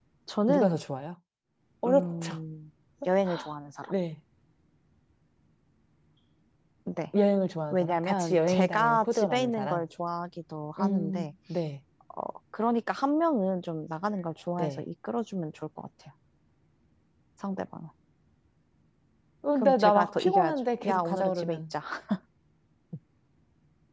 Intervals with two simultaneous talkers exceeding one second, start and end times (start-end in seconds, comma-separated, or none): 7.7-9.8, 19.6-21.6